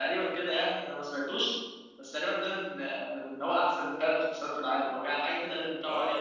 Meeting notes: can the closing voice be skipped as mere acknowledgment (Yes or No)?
No